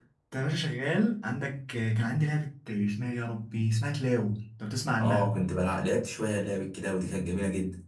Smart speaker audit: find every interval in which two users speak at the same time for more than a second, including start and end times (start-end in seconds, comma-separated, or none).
none